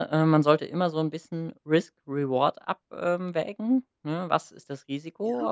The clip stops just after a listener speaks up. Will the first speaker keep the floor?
Yes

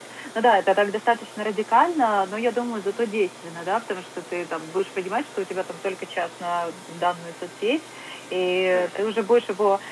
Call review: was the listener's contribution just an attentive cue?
Yes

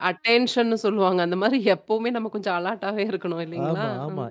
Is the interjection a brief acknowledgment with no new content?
No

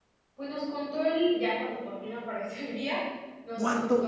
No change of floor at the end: No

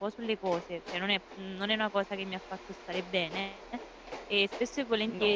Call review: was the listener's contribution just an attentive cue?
Yes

